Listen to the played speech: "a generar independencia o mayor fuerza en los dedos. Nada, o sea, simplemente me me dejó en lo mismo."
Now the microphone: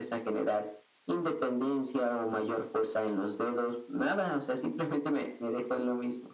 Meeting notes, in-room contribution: none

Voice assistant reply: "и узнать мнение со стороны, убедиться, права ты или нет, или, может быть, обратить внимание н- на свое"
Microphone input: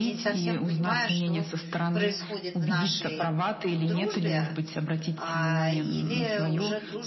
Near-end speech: present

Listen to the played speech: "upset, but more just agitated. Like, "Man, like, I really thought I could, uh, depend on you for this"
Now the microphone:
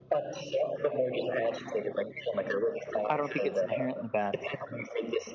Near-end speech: present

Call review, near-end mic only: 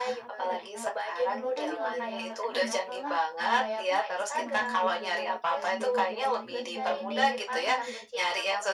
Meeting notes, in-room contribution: present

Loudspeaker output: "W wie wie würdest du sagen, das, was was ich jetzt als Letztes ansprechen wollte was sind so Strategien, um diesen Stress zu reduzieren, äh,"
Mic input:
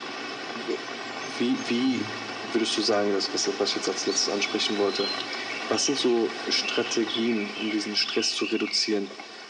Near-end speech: present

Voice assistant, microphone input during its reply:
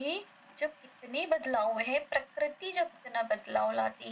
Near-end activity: none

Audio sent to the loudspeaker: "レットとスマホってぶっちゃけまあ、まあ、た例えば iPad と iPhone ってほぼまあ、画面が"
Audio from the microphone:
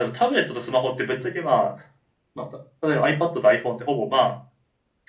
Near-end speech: none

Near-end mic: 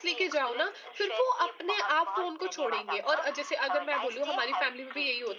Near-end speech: present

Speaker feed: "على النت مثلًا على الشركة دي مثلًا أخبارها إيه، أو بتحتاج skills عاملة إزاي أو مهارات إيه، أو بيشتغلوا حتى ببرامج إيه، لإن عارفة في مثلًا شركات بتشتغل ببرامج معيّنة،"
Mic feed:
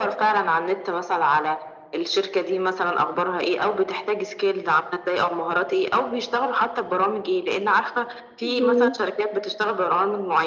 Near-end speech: present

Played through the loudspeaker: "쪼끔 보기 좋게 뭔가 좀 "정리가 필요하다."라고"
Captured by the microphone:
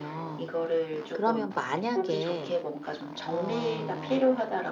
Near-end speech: present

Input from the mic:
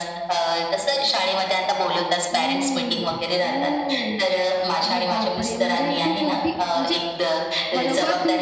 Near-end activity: present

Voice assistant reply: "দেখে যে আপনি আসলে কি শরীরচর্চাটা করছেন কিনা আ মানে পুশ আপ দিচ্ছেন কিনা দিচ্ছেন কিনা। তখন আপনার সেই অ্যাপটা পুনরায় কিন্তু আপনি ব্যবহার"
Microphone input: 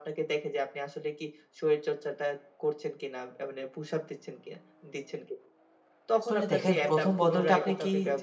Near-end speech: present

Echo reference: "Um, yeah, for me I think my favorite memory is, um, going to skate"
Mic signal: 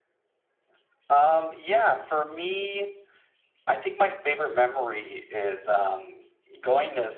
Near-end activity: none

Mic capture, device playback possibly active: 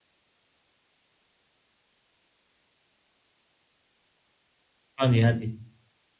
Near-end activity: present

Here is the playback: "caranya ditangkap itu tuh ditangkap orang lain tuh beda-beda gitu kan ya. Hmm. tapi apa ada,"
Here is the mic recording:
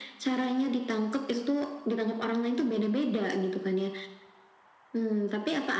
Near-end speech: none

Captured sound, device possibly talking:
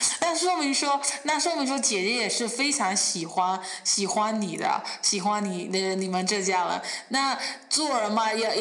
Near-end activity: none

